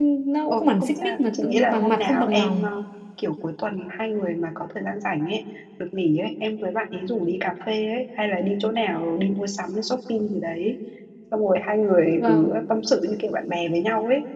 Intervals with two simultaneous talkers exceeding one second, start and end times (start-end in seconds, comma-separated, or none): 0.5-2.7